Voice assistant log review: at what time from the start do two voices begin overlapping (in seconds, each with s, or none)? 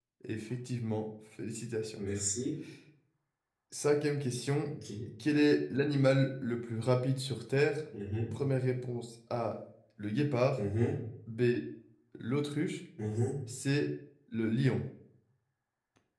none